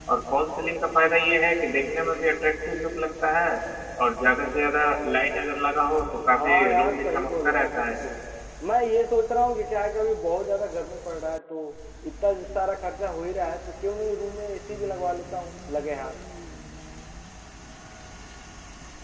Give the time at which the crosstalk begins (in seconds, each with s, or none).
6.3 s